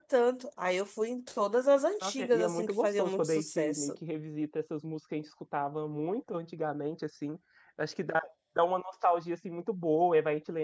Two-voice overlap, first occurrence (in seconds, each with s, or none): 2.0 s